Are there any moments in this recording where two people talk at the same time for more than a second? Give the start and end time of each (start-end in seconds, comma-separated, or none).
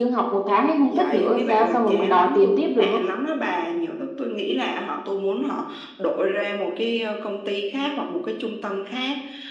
0.9-3.0